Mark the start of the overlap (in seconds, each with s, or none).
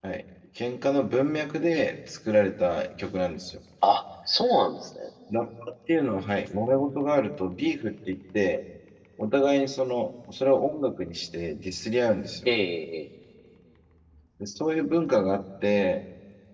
none